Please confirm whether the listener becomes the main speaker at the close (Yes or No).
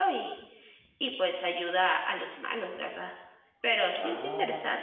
Yes